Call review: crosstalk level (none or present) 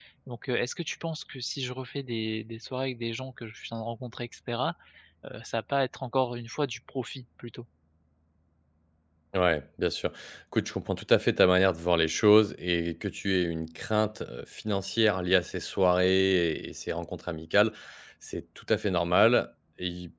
none